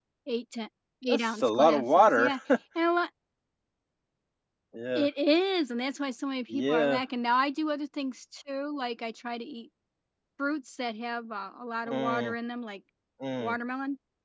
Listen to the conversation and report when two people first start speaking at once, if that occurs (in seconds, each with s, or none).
1.1 s